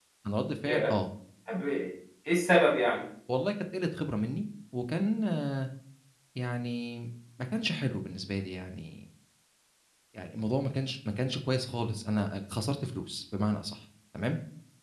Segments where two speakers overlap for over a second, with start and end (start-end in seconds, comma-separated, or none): none